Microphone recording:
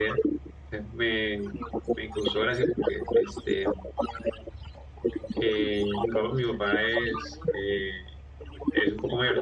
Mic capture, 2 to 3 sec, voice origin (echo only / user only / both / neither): both